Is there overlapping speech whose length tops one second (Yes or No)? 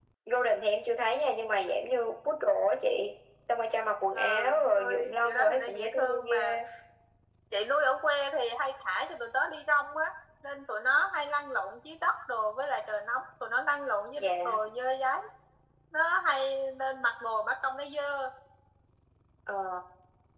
Yes